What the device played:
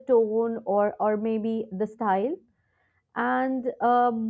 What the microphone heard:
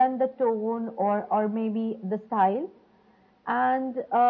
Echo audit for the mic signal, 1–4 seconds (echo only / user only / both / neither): echo only